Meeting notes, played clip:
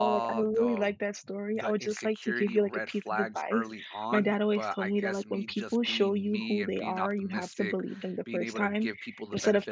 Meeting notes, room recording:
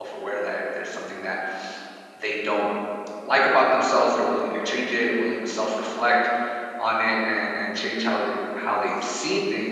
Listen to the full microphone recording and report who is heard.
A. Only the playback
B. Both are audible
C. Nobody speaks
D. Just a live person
D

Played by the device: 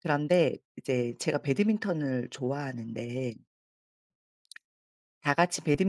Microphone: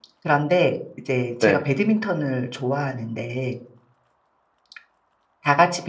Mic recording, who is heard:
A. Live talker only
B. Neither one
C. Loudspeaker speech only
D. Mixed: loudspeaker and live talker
D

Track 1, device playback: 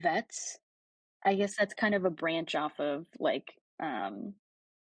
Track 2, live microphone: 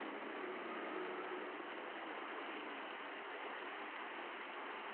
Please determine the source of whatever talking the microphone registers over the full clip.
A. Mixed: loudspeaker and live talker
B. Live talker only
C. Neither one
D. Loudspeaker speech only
C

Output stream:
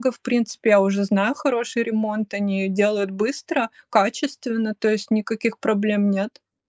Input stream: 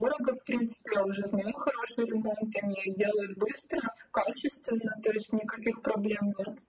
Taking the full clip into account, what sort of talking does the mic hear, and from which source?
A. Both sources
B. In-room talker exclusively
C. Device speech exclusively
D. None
C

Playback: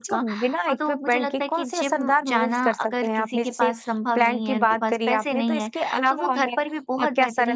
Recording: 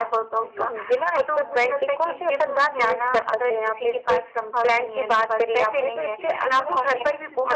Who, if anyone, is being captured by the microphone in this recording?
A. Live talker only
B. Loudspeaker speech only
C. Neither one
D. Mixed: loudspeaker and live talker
D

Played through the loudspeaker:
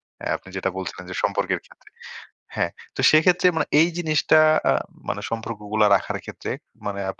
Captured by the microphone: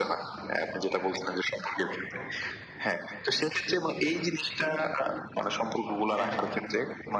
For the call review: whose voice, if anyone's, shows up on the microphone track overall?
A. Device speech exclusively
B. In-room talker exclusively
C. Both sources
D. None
C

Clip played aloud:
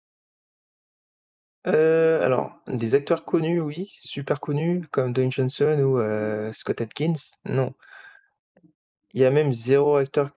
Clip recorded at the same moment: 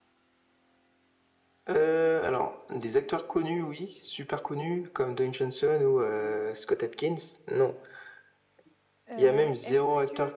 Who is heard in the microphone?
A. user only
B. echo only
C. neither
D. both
D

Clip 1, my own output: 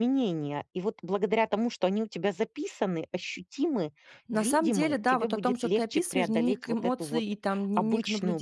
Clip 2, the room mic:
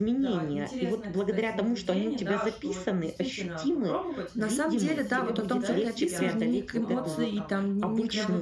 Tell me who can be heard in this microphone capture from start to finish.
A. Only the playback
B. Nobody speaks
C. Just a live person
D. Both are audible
D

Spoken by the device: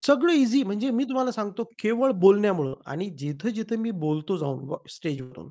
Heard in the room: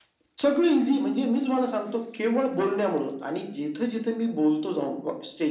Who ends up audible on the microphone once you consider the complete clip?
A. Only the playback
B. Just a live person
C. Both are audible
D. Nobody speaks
A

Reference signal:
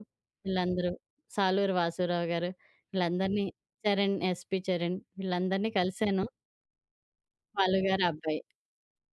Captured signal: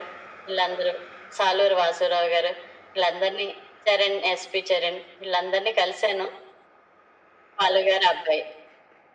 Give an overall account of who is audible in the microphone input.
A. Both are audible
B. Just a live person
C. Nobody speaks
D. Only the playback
D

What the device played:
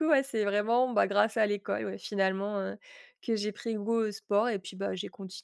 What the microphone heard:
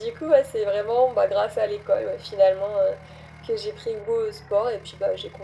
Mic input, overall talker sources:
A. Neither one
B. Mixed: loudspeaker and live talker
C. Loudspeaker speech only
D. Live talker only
C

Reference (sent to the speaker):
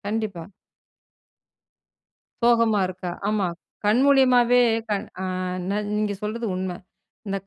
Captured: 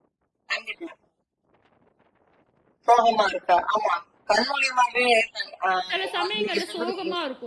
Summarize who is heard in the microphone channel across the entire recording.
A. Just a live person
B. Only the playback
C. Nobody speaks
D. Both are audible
D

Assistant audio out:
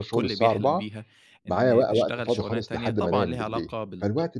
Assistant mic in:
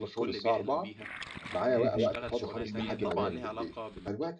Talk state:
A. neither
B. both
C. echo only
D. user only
B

